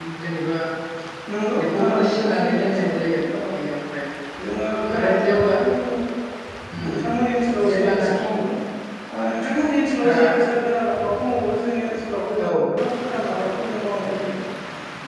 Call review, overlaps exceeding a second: present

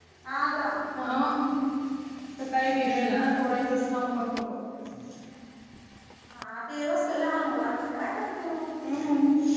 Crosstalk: none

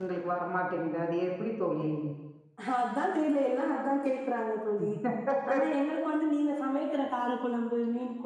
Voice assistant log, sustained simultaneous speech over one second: none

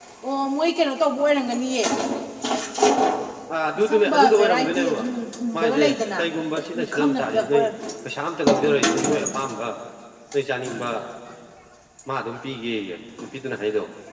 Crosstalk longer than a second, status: present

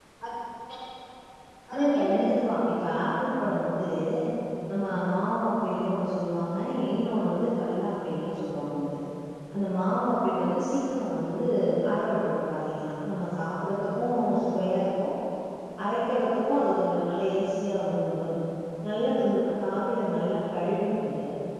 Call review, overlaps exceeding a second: present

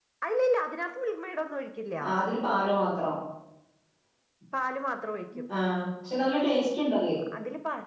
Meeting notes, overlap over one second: none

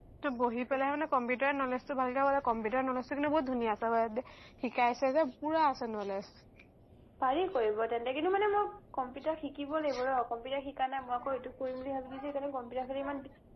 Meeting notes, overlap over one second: none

